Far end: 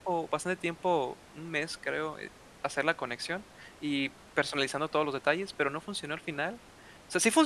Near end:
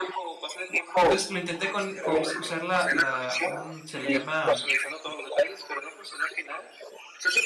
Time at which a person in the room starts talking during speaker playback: 1.1 s

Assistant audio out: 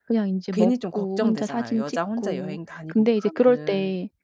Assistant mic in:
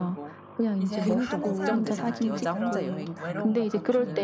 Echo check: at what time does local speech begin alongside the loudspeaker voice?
0.8 s

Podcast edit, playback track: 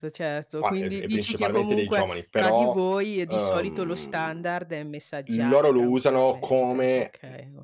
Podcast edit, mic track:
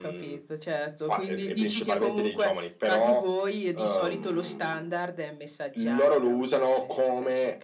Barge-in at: none

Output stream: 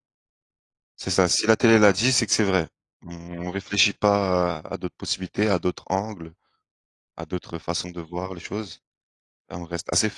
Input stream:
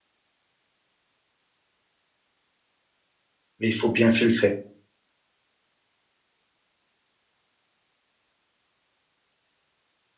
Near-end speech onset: 3.6 s

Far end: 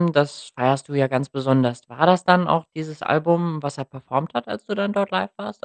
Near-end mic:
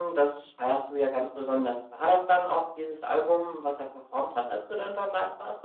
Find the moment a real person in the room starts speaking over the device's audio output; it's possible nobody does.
none

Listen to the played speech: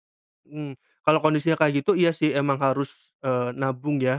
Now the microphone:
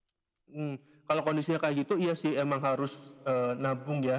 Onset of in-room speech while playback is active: none

